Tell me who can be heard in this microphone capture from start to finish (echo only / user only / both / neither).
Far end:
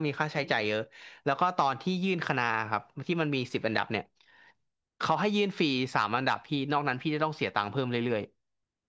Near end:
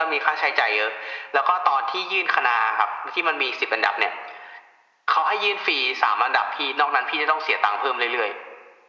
echo only